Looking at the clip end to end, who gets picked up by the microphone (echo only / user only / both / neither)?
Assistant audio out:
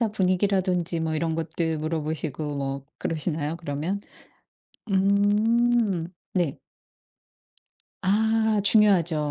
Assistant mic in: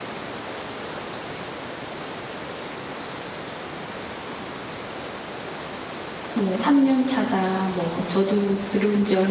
user only